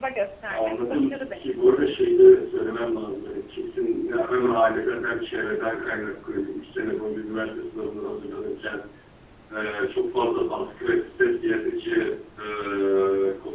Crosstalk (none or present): present